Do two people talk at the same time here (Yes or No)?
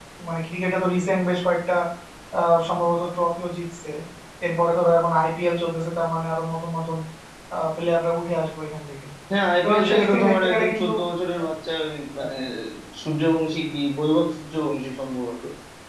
Yes